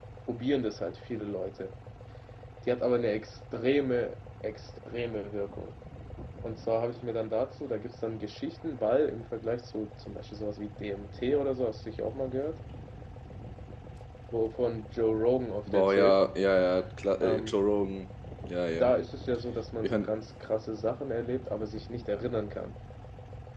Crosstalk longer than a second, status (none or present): none